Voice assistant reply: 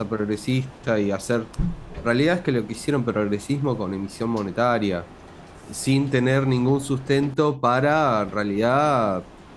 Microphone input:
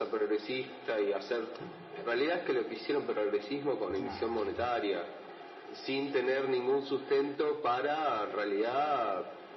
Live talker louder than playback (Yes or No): No